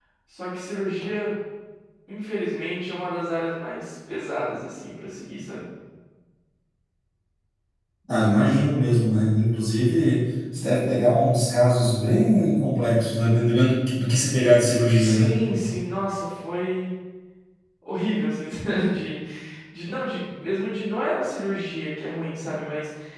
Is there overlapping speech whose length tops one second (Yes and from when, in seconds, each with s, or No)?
No